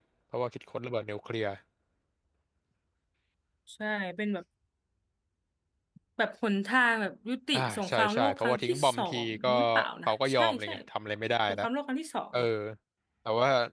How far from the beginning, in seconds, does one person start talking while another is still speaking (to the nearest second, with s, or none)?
8 s